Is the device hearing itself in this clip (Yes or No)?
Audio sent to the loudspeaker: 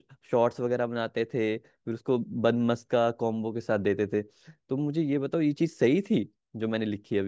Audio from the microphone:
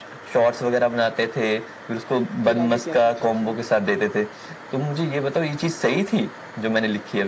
Yes